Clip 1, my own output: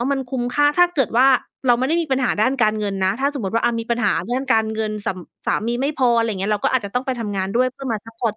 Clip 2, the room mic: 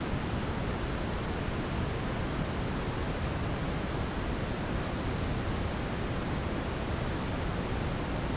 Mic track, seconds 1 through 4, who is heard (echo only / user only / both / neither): neither